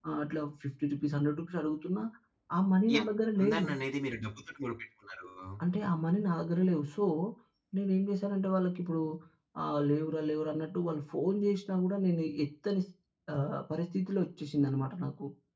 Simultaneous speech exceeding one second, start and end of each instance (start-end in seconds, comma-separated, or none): none